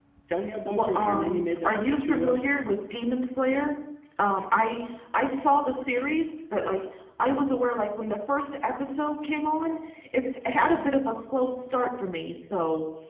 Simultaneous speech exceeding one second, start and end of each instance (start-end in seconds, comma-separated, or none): 0.7-2.5